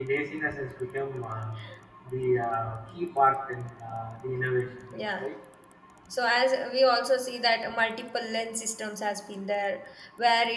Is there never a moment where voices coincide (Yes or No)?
Yes